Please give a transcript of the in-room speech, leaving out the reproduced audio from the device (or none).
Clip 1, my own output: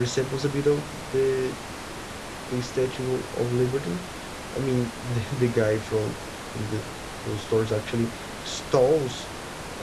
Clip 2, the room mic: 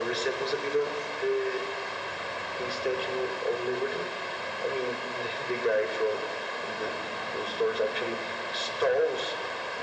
none